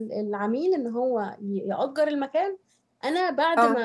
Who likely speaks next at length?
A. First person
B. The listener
A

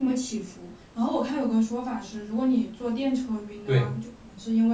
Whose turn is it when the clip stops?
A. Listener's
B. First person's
B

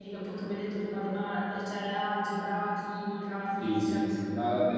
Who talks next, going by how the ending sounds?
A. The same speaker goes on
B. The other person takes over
B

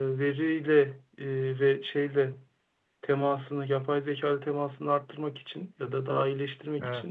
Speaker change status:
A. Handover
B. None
B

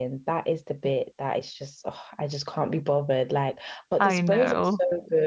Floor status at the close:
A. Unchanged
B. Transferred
A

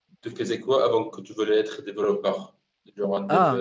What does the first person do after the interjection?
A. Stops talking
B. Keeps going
A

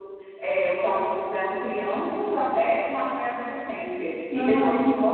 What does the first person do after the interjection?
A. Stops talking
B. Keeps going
B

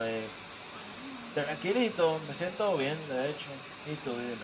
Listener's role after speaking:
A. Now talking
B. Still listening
A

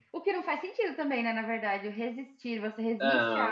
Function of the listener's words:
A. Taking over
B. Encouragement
B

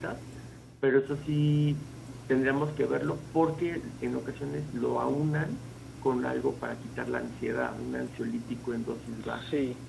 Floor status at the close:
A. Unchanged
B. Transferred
B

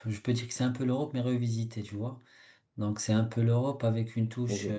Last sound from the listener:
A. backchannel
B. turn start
A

